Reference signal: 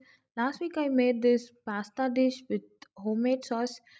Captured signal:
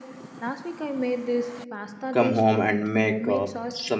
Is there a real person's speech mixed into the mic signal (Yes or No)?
Yes